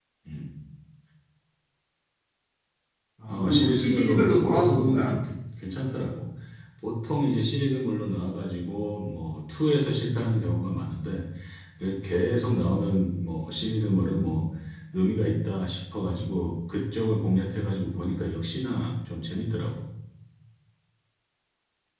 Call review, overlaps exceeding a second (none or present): present